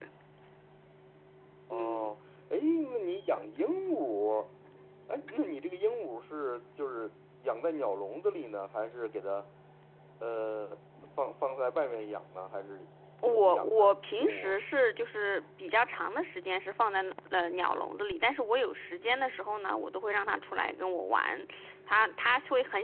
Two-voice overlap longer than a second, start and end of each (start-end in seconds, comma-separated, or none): 13.3-14.5